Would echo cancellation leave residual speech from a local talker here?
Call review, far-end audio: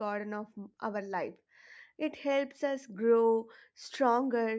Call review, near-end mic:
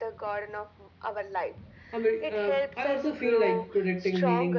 Yes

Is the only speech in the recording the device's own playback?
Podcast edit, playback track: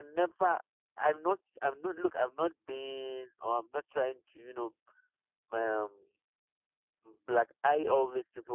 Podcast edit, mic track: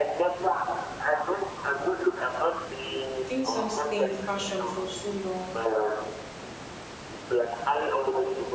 No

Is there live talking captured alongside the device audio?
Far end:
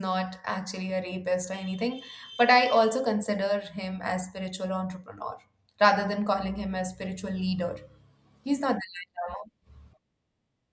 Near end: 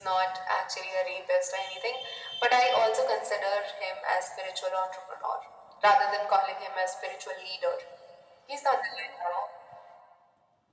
No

